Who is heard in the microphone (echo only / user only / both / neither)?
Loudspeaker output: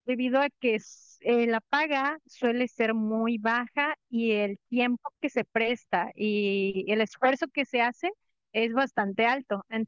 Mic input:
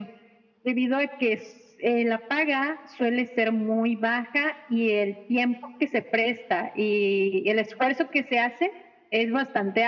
echo only